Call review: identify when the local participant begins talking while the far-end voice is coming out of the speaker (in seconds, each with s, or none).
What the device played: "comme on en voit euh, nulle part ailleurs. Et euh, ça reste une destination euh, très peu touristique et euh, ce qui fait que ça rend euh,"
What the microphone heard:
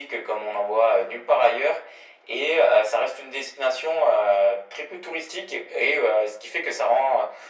none